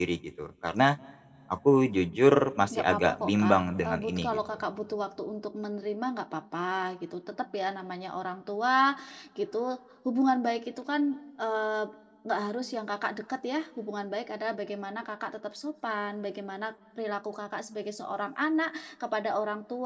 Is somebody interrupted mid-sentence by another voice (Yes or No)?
Yes